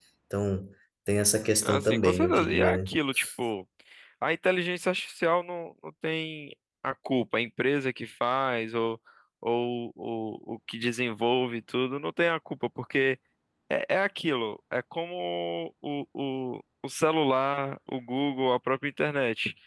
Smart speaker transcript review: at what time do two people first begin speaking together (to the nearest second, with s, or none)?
2 s